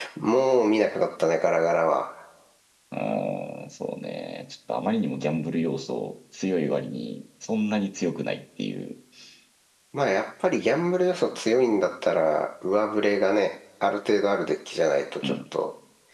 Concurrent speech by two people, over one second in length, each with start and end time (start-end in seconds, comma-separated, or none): none